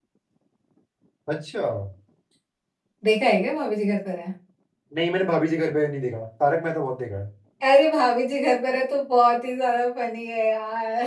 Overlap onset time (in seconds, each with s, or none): none